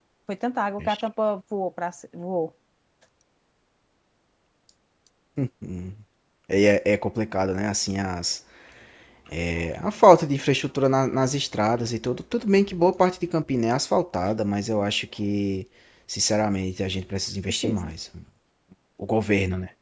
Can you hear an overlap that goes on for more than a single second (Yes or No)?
No